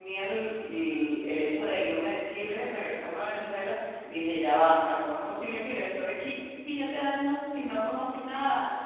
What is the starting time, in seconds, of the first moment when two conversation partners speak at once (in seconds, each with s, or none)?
none